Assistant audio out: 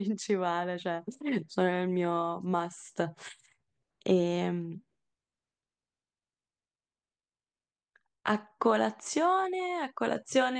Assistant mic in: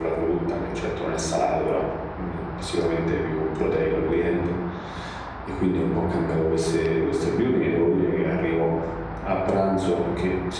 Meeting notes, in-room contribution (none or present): present